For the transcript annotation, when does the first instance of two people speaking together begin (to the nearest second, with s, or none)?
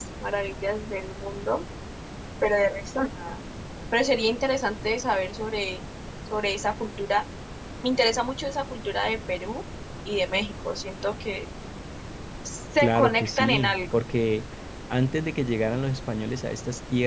13 s